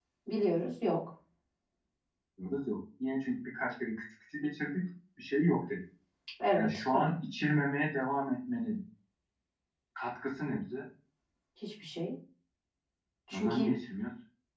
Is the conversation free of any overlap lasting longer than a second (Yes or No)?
Yes